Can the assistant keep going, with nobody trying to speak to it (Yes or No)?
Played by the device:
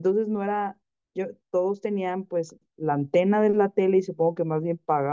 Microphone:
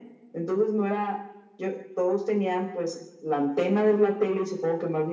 Yes